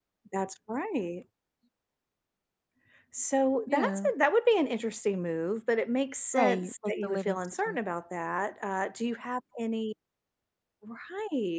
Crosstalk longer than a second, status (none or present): present